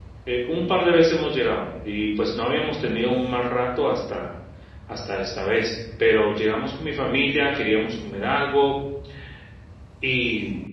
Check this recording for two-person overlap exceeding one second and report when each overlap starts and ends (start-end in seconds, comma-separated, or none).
none